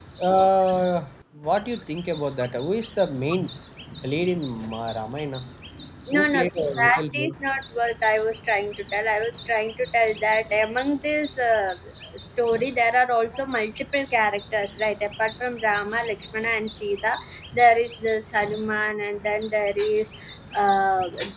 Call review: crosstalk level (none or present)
present